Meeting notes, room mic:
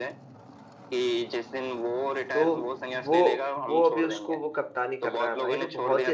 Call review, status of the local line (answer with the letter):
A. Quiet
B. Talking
B